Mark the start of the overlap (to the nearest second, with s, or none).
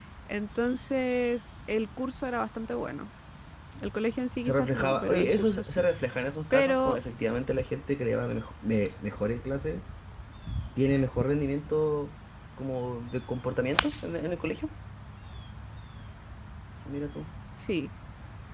4 s